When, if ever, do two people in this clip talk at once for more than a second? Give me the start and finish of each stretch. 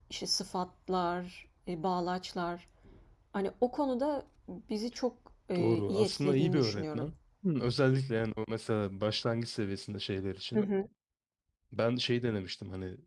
5.6-7.1

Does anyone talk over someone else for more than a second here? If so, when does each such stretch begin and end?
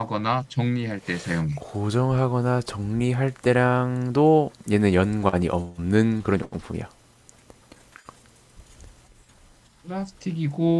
none

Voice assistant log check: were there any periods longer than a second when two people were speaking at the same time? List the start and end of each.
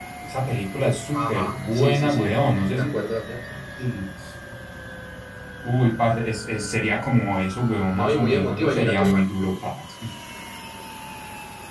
1.1-2.9, 7.9-9.2

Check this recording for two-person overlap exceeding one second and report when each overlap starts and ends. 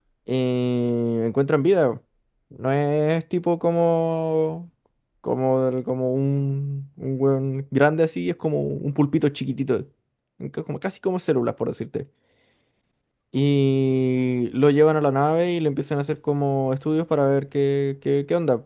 none

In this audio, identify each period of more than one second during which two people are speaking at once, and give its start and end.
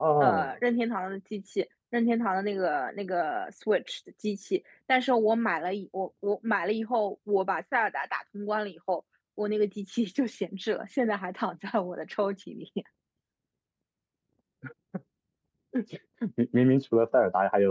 none

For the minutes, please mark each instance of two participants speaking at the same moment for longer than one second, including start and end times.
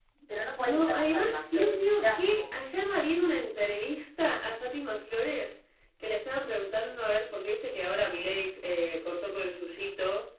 0.6-2.4

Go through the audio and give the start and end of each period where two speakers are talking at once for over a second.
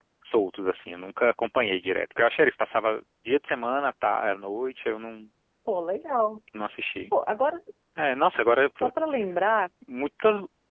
none

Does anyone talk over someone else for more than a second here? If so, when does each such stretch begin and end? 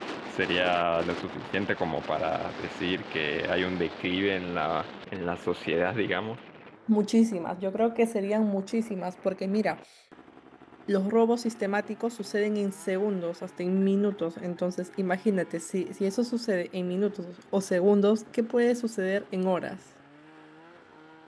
none

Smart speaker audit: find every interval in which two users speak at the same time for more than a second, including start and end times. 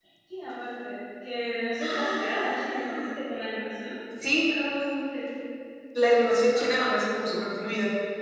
1.8-3.2

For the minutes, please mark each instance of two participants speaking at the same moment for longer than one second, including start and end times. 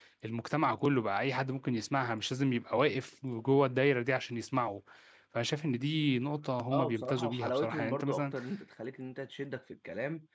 6.7-8.3

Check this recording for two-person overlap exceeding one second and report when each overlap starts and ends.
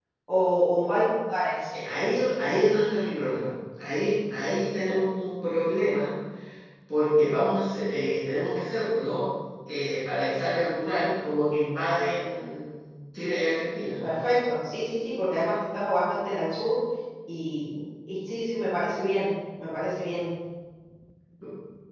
none

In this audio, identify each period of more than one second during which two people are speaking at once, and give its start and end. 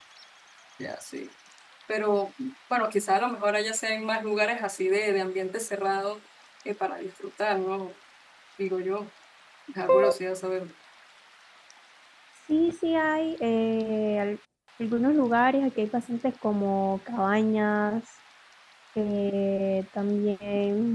none

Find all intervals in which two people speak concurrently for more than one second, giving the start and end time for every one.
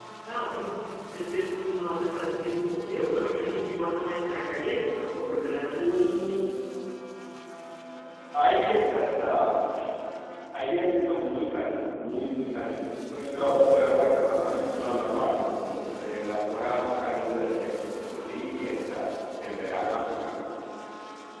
none

